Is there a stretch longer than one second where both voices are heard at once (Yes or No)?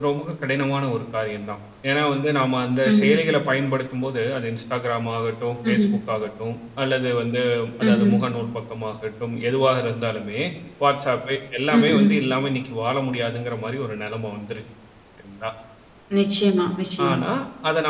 No